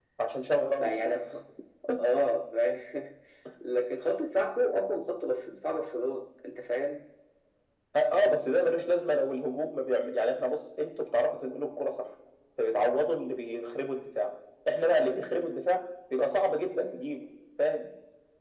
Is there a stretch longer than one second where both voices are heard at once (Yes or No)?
No